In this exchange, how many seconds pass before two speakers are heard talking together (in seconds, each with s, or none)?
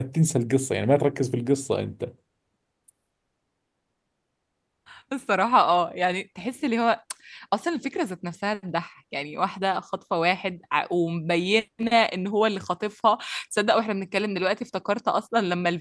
none